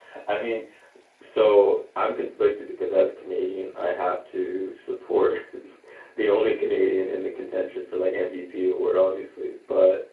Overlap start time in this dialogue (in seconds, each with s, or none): none